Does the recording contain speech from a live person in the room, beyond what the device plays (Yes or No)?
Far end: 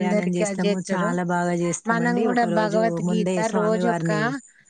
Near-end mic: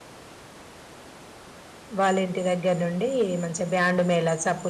Yes